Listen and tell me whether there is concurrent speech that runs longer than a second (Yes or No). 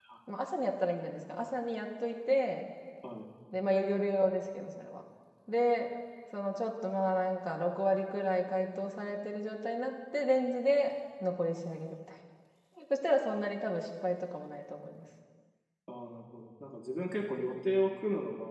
No